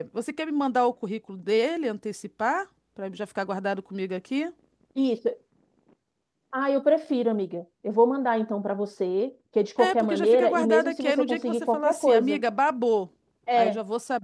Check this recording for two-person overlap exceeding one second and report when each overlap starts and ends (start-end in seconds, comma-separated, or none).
9.8-12.4